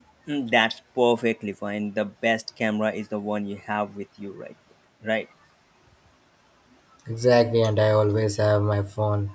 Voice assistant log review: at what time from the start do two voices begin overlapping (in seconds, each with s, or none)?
none